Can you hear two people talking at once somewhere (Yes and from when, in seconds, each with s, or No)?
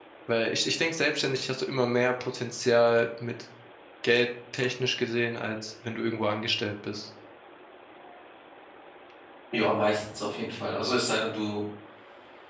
No